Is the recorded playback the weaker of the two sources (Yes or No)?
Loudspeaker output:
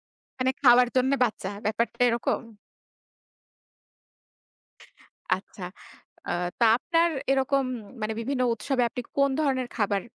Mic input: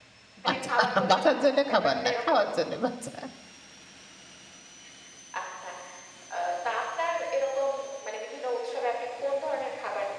Yes